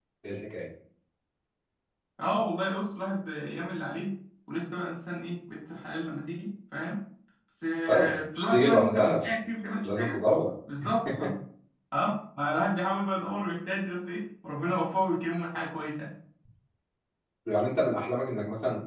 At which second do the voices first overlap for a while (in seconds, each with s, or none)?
7.9 s